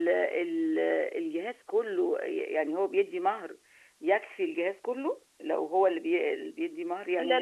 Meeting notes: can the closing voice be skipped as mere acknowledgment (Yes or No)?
No